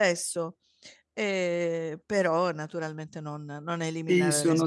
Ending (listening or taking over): taking over